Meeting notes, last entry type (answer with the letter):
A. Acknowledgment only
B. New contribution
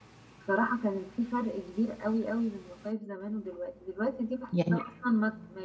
A